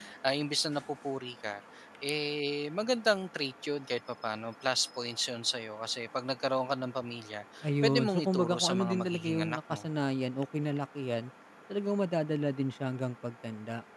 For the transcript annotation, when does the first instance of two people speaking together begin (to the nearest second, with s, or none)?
8 s